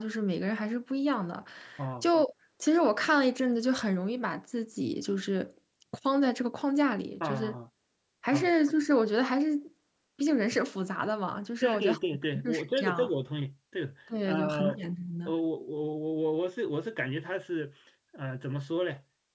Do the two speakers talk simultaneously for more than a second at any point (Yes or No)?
Yes